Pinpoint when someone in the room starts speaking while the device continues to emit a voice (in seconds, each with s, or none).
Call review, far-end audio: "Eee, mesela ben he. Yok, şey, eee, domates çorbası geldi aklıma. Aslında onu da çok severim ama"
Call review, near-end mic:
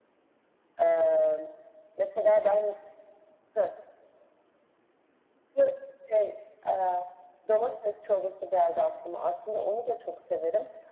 none